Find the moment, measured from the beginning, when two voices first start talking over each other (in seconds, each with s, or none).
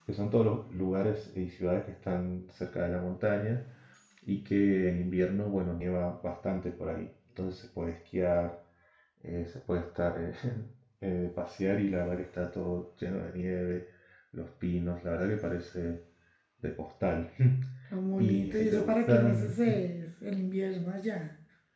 18.2 s